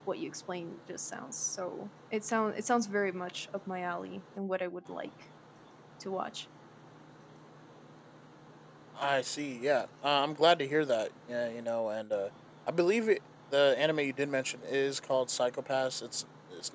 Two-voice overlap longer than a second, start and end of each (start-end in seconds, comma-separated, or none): none